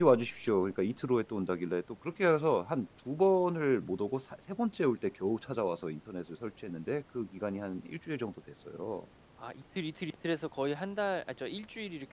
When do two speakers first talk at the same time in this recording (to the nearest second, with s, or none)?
none